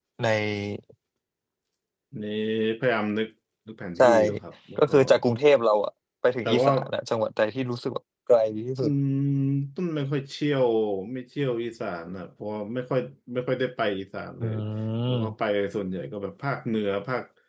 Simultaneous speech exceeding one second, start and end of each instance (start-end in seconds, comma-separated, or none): none